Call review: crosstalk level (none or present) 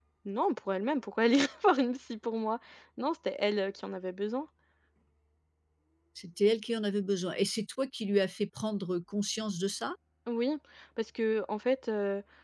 none